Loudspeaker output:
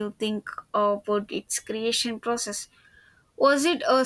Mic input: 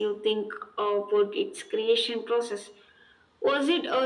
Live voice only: none

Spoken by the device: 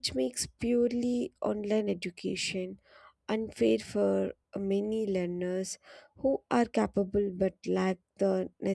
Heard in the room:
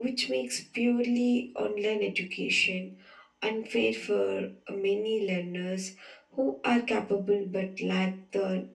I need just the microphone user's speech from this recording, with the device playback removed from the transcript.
none

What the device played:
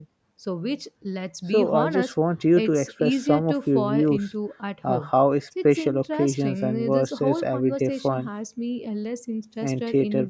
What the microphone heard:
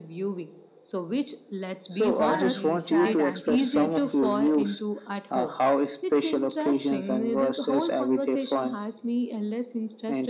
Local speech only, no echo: and the shared anticipation.

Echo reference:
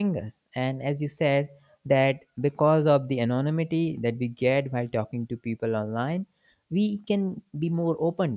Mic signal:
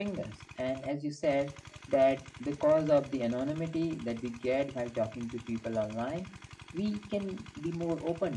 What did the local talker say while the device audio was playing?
none

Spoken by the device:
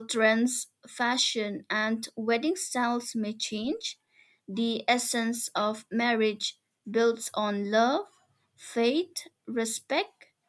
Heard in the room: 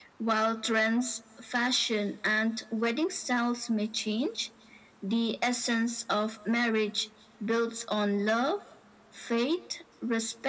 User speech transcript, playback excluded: none

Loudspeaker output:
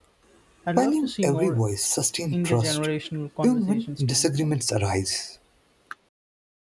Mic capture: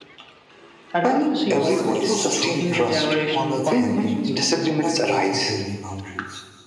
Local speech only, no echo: Respectful storytelling honors heritage while teaching healthy boundaries.

